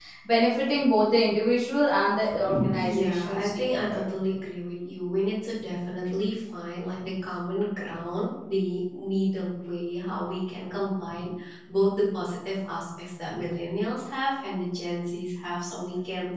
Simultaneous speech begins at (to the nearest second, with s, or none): 2 s